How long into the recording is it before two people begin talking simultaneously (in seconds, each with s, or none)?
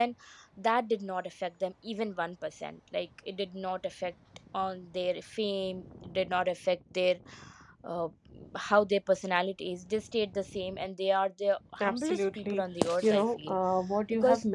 11.8 s